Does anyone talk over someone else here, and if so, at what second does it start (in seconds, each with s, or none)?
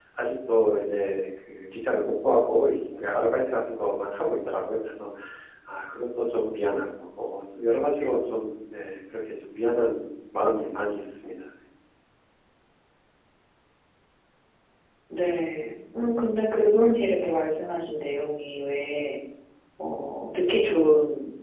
none